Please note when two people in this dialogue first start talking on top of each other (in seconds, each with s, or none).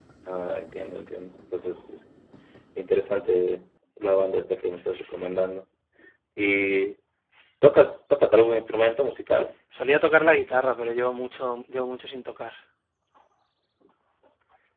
none